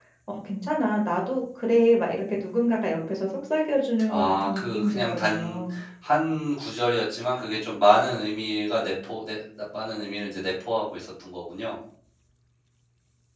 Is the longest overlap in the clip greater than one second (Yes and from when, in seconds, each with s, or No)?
Yes, from 4.1 s